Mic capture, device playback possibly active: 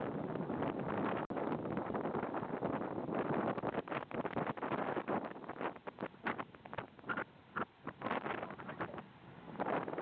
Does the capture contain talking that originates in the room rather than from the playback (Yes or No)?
No